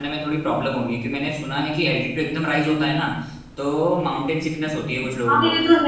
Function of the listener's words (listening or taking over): taking over